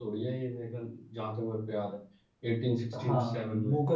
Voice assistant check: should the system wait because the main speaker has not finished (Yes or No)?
No